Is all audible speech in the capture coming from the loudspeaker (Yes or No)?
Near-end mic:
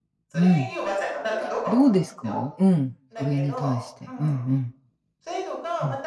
No